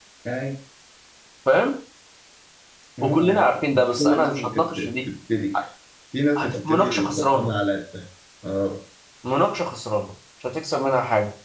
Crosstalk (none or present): present